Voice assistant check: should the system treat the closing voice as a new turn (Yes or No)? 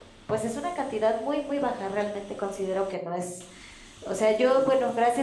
No